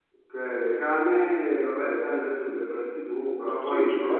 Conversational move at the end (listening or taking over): taking over